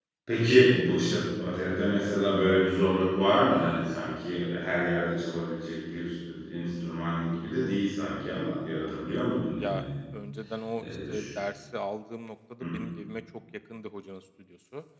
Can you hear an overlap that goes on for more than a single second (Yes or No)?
No